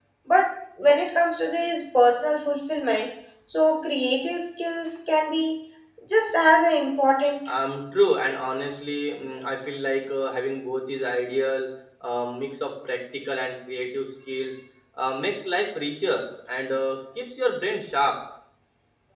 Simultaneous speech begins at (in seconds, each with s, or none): none